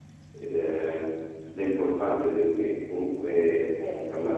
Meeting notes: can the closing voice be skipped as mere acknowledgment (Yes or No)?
Yes